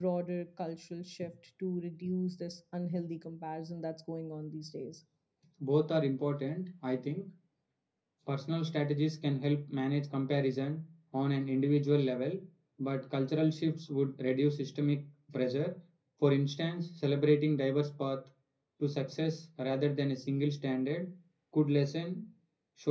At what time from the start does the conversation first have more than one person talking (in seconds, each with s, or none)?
none